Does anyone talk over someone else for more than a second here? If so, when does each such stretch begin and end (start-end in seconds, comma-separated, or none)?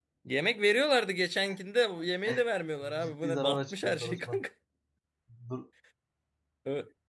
3.0-4.4